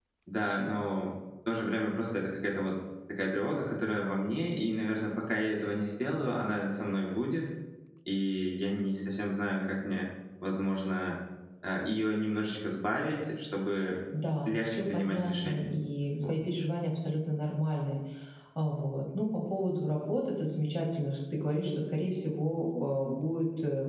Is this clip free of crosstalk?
No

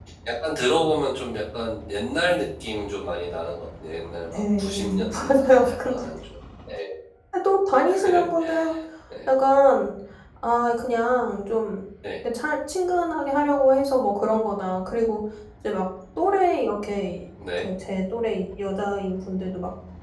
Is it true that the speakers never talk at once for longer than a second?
No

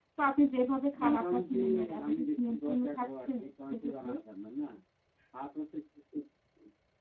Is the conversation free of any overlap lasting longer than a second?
No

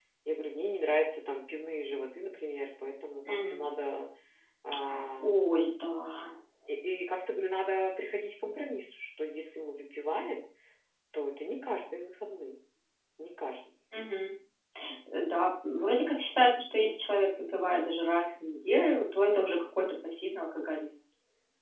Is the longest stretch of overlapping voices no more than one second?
Yes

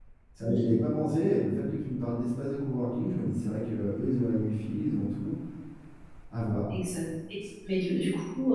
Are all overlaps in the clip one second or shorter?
Yes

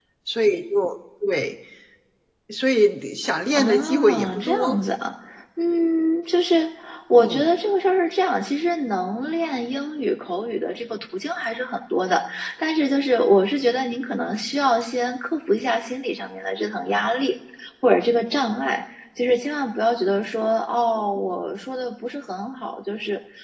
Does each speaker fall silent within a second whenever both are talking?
No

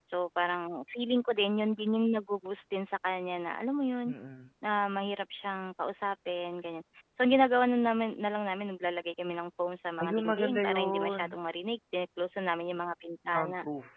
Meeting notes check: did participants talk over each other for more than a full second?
Yes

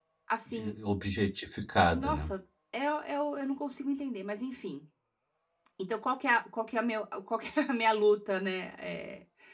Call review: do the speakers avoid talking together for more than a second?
Yes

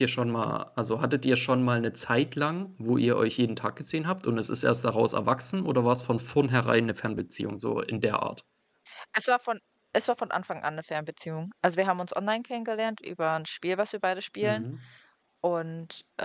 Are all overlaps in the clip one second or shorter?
Yes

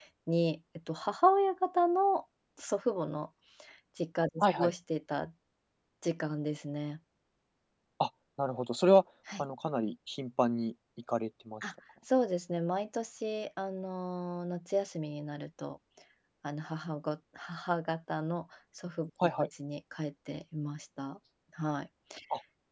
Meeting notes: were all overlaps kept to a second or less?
Yes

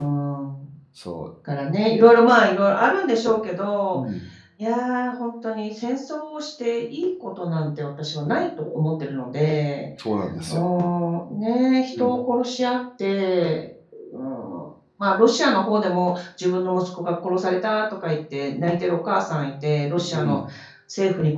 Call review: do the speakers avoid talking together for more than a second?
Yes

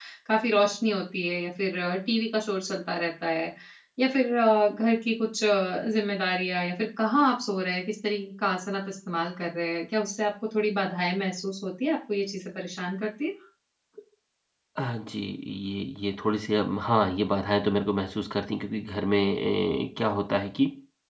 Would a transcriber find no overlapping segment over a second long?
Yes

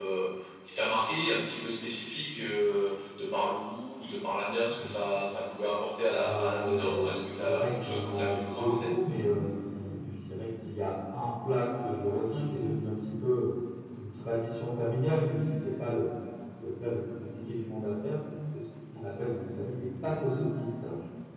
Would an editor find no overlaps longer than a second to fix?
No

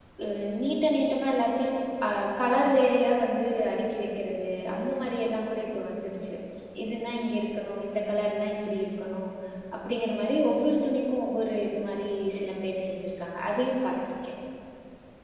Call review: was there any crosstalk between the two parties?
No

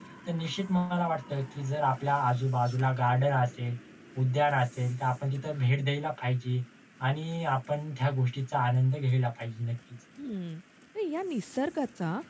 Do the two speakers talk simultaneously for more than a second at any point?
No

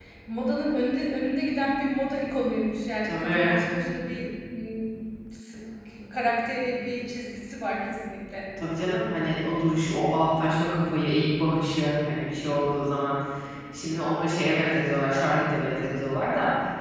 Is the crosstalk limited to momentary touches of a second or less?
Yes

